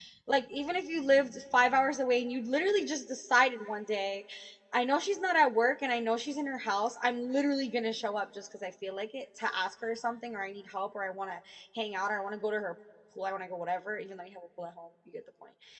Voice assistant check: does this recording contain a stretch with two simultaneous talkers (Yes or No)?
No